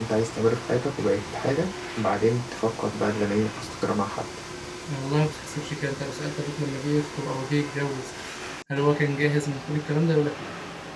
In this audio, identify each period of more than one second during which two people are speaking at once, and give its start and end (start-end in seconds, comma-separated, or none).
none